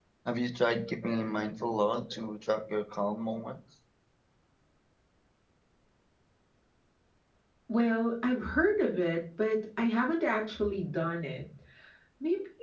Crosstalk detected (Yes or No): No